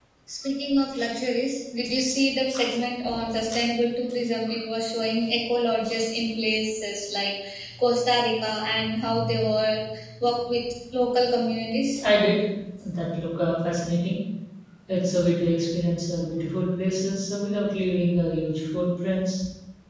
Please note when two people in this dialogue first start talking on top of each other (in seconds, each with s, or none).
none